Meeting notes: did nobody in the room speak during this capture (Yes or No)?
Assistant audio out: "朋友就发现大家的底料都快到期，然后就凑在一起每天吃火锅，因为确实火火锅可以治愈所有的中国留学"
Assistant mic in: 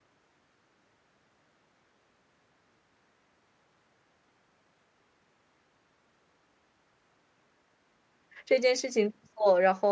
No